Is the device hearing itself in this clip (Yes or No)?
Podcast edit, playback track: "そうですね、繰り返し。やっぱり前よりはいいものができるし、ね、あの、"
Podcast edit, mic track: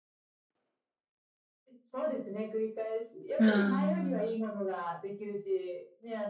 Yes